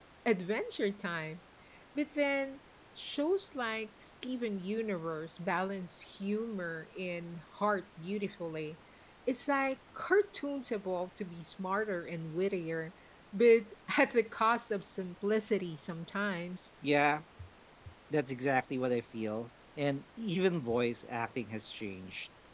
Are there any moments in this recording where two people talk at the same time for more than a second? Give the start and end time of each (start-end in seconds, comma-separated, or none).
none